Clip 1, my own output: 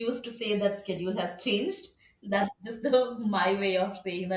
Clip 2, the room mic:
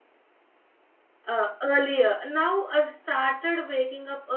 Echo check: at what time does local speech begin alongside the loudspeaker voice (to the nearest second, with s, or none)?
1 s